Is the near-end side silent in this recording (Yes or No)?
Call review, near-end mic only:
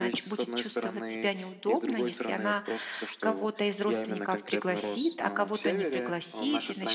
No